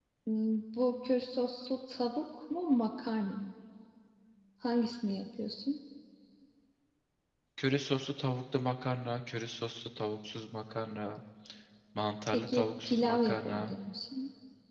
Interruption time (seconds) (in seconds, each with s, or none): 12.3 s